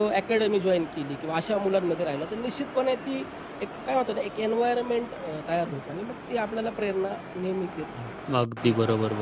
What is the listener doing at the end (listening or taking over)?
taking over